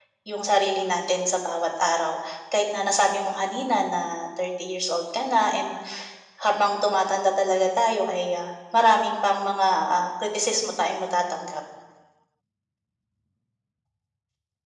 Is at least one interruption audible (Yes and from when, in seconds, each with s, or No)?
No